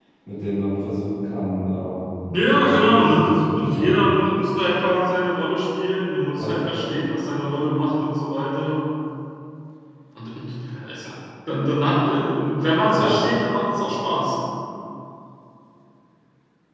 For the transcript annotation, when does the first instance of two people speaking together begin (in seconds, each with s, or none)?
2.5 s